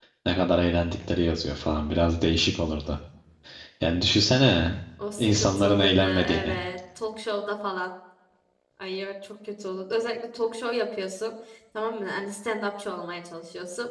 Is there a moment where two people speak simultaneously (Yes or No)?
Yes